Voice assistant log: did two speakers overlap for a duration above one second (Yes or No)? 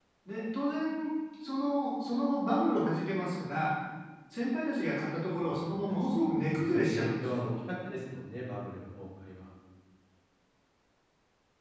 Yes